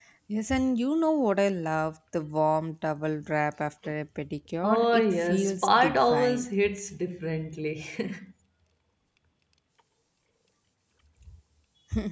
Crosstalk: present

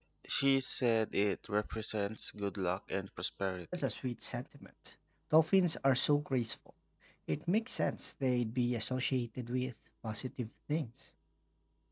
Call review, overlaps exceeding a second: none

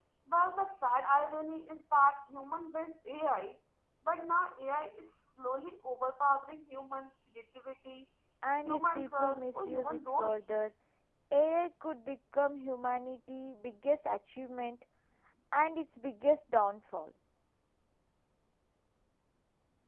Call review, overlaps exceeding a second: present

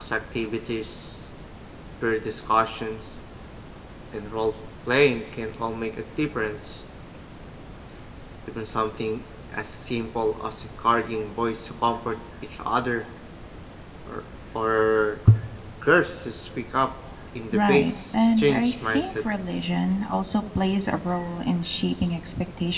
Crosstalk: present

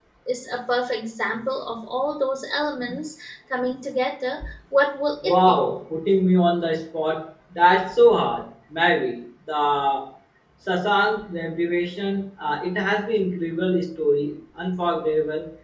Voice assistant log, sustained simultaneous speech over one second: none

